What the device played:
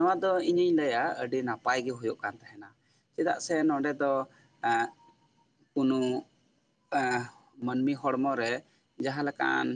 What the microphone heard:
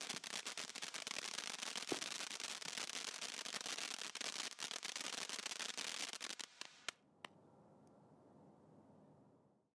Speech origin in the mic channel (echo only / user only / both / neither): neither